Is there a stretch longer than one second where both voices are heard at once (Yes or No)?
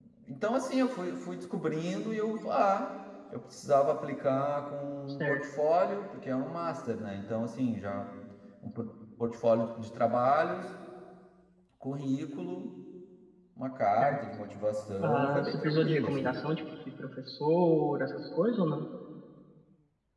Yes